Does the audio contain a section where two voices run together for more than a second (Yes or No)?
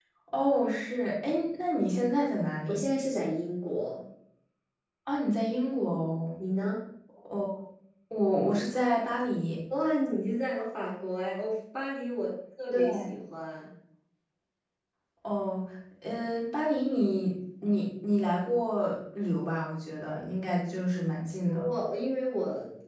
No